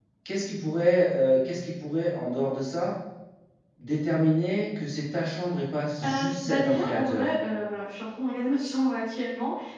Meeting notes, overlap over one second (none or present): present